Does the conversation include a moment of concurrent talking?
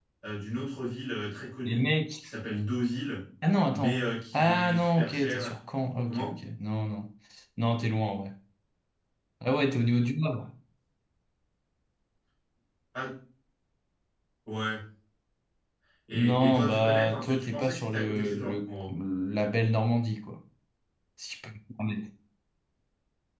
Yes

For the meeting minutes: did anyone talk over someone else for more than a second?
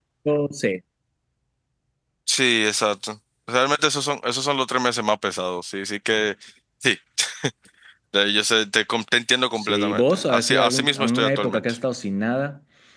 Yes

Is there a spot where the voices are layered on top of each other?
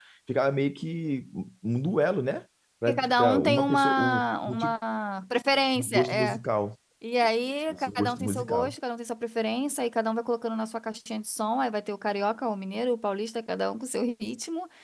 Yes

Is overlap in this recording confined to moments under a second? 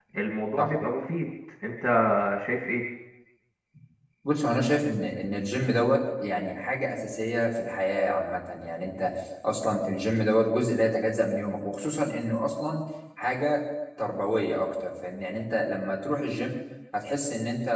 Yes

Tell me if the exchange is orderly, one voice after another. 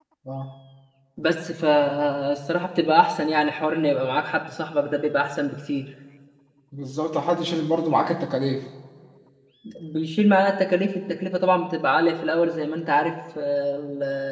Yes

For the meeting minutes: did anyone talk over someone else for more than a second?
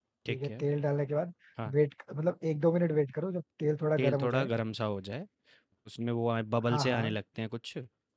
No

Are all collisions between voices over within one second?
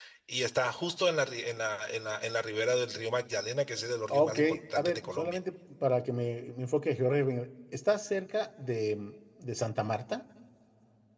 No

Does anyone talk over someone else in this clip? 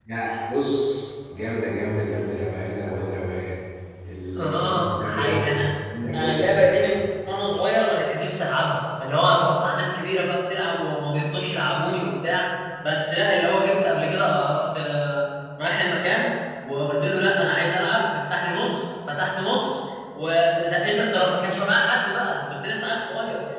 Yes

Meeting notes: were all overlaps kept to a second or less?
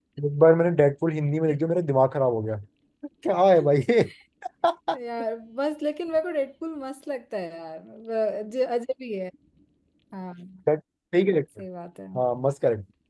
Yes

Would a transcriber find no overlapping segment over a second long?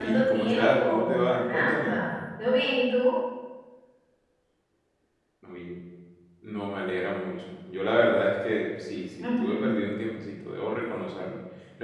No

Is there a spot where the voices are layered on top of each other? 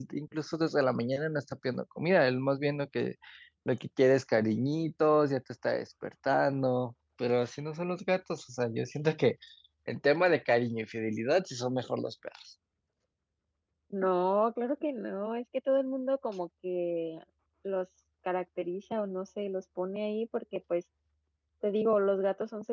No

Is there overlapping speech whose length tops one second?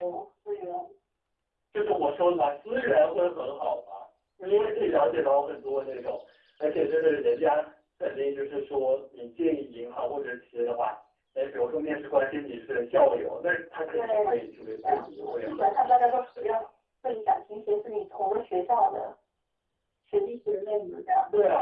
Yes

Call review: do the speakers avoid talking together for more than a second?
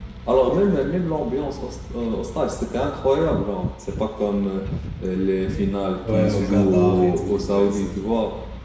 No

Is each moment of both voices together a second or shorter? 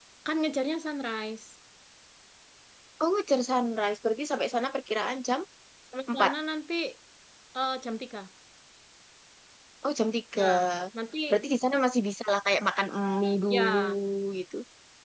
Yes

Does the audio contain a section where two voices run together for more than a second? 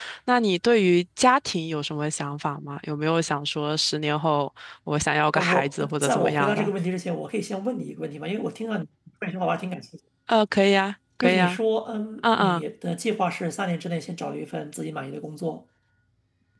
Yes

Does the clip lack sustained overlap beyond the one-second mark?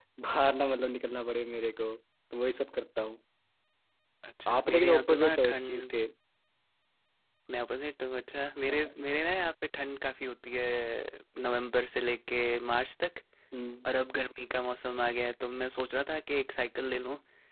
No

